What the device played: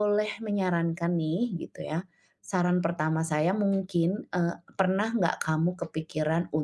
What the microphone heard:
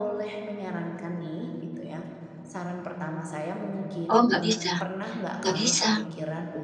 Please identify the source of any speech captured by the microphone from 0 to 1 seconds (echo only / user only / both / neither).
echo only